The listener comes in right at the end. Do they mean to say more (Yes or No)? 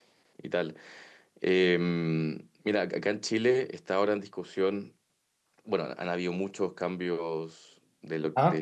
No